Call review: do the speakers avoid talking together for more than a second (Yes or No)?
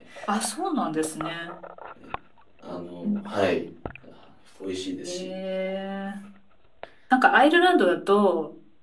Yes